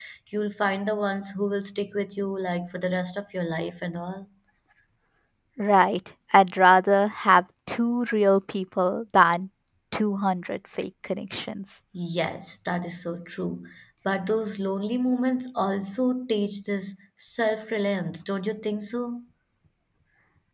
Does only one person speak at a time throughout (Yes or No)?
Yes